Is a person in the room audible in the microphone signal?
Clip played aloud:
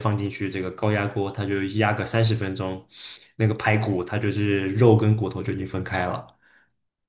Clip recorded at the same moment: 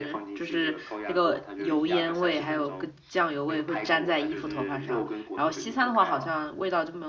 Yes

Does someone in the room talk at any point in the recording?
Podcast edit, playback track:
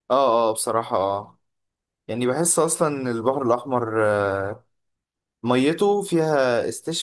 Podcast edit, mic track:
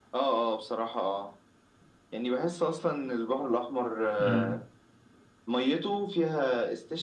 Yes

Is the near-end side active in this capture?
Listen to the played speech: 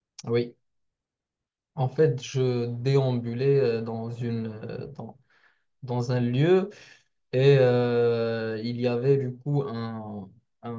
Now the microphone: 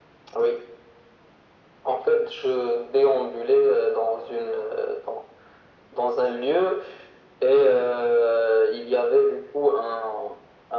No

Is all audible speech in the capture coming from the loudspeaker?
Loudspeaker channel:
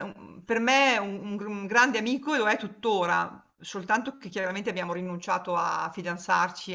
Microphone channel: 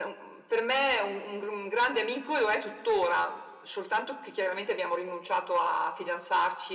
Yes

